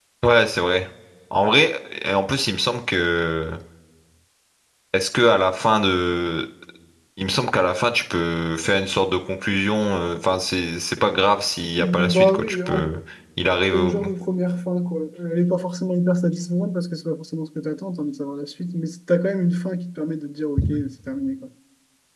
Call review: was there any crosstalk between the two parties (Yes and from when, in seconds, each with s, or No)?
Yes, from 11.8 s